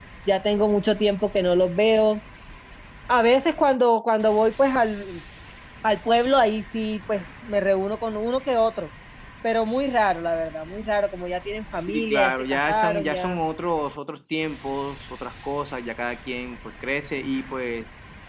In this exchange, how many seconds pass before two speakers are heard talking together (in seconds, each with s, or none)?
11.8 s